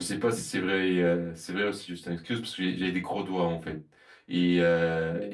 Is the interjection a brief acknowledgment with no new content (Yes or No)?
Yes